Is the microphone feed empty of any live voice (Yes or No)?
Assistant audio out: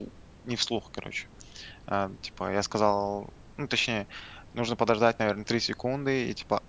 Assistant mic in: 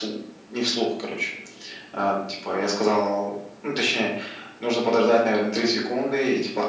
Yes